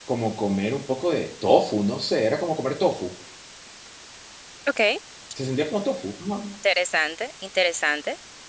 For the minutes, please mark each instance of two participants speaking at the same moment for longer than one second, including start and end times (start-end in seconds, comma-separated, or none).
none